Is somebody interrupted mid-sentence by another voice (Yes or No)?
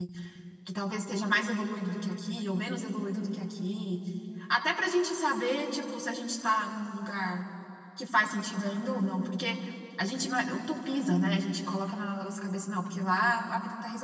No